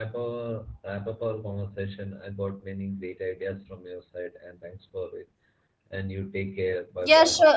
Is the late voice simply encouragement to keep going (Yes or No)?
No